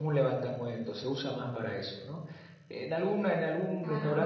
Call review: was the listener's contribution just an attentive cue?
Yes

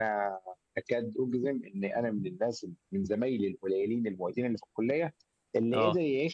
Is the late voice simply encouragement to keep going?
Yes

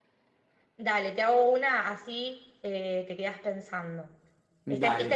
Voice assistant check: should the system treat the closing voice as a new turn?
No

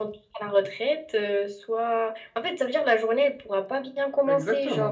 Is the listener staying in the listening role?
No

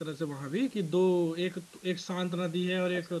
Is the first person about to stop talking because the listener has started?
No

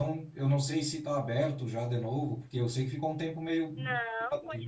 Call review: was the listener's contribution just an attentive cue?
No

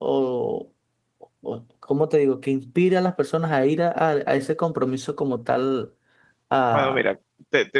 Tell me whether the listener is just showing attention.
No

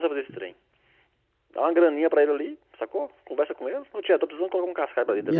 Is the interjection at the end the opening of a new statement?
Yes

